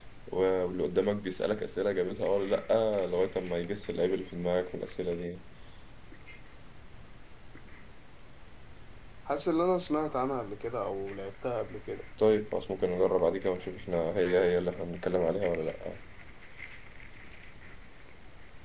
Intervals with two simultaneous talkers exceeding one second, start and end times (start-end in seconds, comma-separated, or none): none